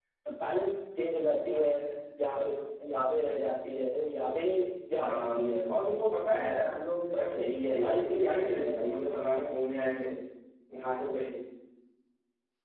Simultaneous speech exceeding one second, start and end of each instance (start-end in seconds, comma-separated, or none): 7.7-9.0